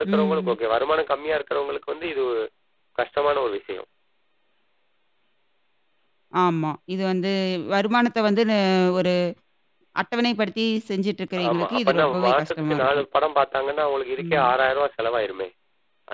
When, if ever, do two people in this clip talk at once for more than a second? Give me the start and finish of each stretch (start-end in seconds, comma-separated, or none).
11.5-13.0